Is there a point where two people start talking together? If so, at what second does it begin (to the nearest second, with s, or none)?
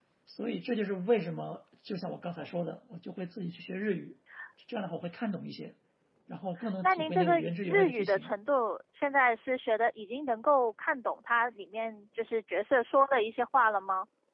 7 s